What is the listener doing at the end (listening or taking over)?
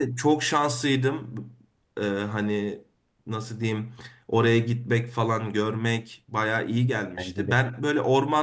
listening